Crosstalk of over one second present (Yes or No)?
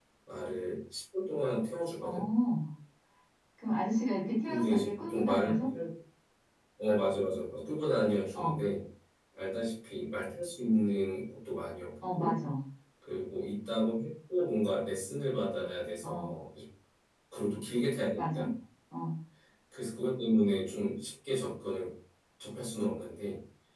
Yes